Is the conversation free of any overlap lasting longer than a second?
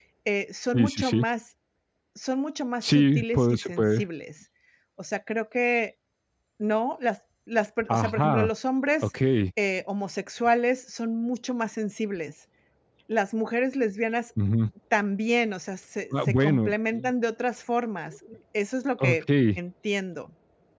No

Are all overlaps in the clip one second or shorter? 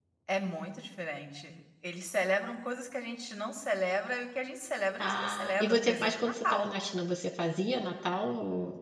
No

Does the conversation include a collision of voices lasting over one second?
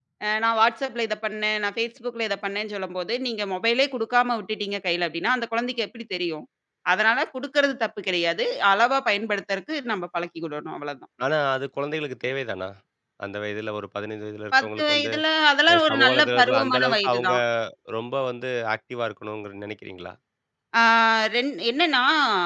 Yes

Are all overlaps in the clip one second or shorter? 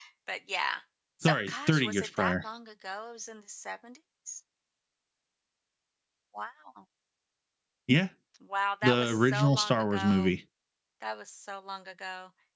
No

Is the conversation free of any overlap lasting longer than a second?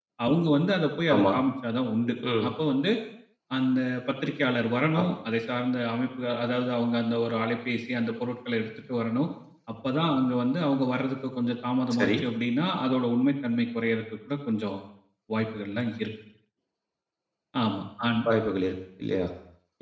Yes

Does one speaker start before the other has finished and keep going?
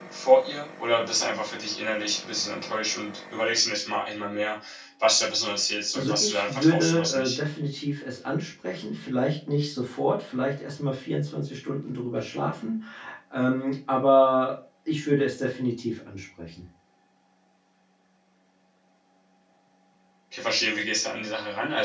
Yes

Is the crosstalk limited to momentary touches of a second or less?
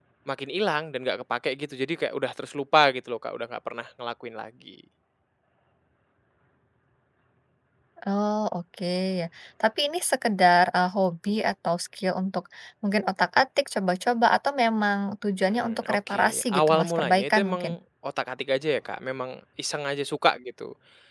No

